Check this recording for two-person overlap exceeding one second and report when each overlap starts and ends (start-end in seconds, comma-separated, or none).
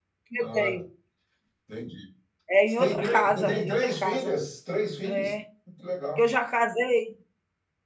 2.7-4.3